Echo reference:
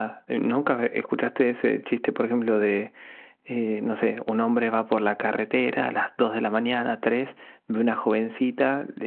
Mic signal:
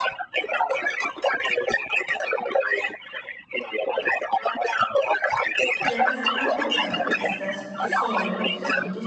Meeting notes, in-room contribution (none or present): present